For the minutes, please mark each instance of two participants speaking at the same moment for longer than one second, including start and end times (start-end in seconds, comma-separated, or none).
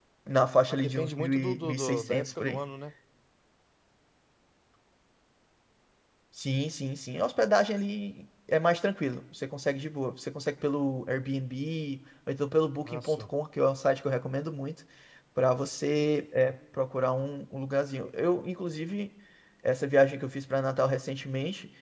0.7-2.6